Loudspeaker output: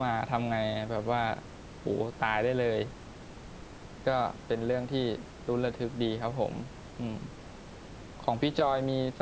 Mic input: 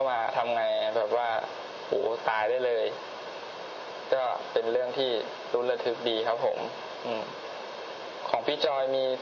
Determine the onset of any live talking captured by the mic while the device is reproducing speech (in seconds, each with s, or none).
none